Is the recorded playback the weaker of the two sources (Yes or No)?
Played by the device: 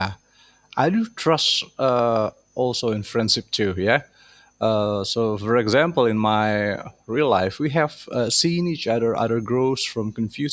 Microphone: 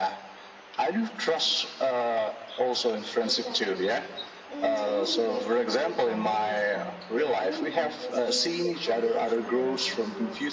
No